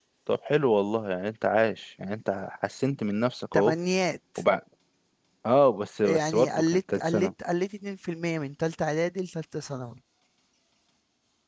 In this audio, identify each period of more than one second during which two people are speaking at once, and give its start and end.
6.0-7.3

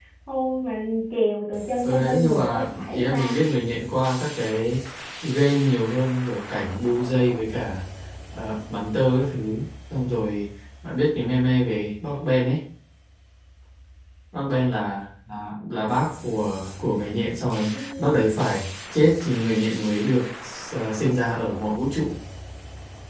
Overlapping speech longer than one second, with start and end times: 1.8-3.3

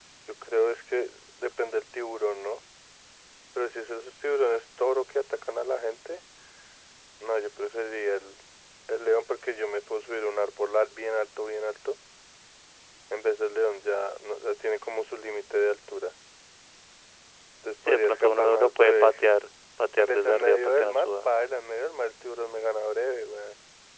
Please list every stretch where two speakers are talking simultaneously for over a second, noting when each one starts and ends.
17.9-19.2, 20.0-21.3

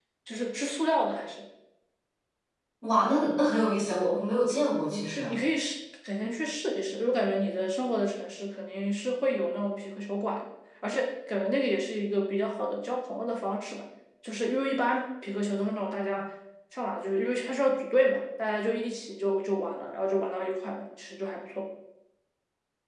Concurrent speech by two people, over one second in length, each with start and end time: none

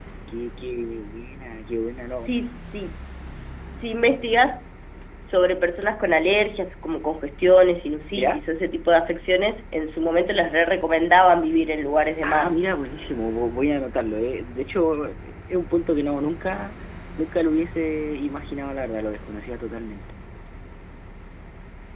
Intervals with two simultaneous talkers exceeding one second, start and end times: none

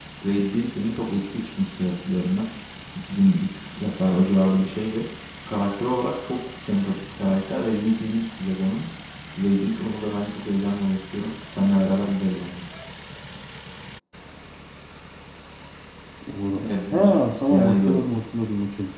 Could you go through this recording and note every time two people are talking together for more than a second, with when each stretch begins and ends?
16.6-18.0

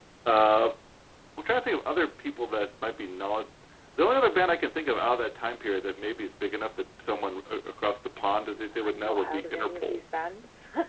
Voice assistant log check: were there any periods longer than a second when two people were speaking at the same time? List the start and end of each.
8.5-10.0

